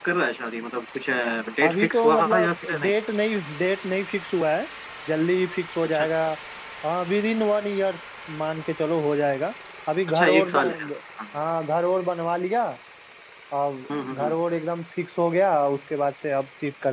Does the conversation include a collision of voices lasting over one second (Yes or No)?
Yes